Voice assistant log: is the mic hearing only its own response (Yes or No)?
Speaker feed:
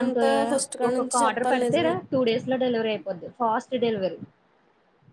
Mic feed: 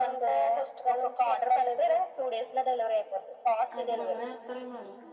No